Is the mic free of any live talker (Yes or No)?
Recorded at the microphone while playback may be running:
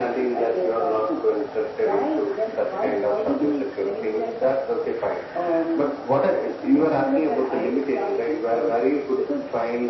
Yes